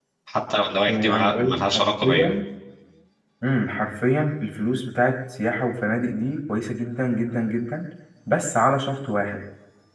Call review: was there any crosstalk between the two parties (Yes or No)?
Yes